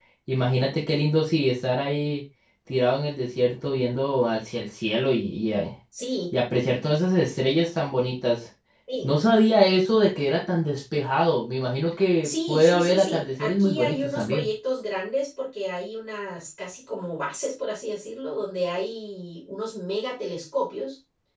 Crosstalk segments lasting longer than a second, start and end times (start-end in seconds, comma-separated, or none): 12.2-14.5